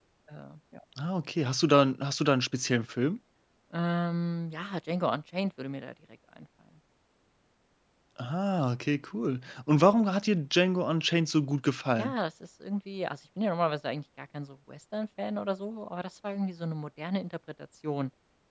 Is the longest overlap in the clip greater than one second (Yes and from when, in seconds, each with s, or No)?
No